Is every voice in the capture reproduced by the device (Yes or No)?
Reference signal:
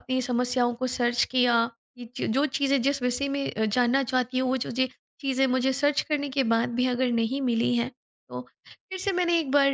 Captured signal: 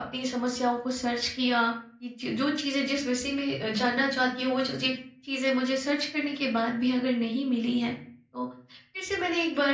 Yes